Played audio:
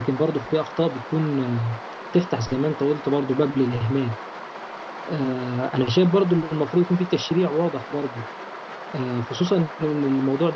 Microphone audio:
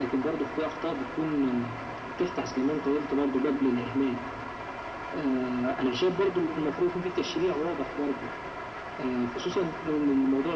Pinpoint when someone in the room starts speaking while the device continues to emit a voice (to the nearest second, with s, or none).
none